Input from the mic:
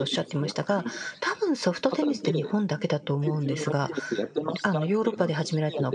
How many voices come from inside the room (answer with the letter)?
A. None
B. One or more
B